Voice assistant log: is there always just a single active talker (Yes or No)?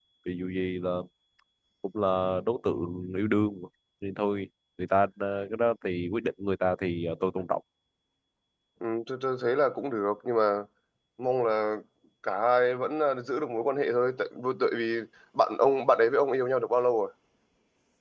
Yes